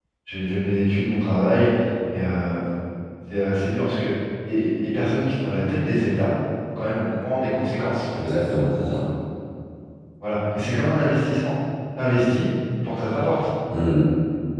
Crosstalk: none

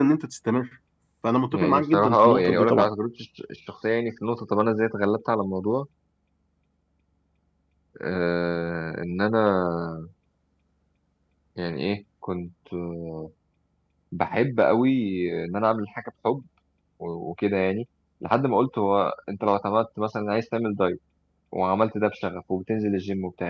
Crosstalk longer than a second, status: present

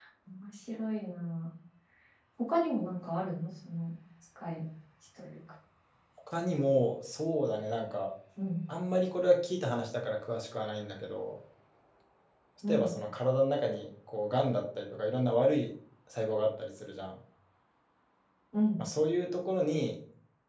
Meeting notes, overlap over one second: none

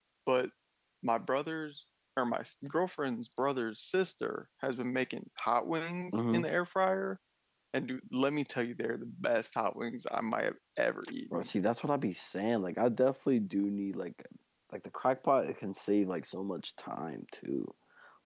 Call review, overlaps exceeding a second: none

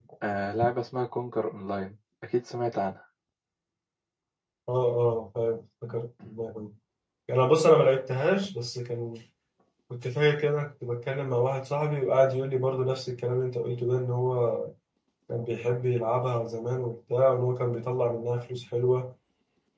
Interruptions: none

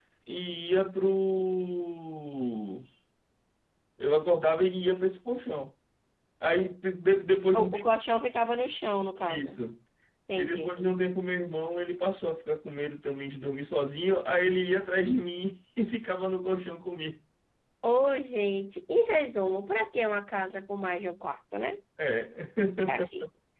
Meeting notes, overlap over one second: none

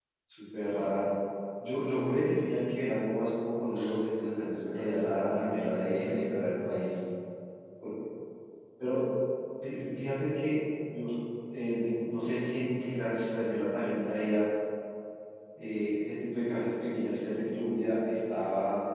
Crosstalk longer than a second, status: present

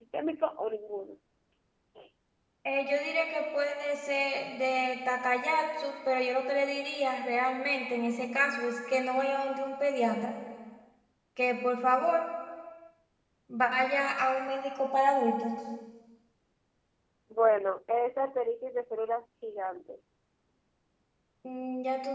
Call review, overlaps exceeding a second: none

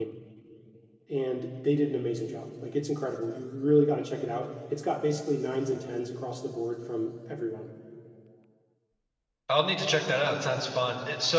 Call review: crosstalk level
none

